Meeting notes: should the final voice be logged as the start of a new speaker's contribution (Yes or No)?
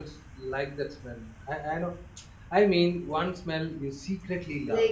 Yes